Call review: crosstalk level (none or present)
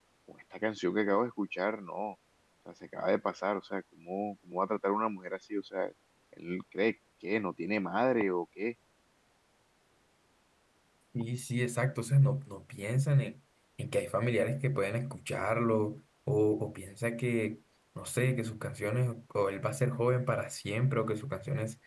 none